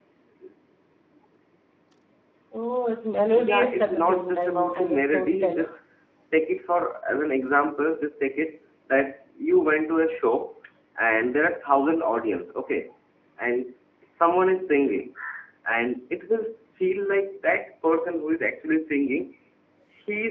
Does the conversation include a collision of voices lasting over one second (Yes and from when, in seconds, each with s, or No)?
Yes, from 3.4 s